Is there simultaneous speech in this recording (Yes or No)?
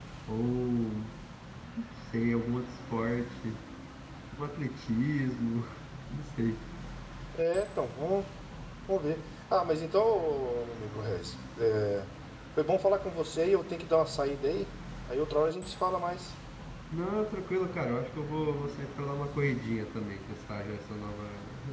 No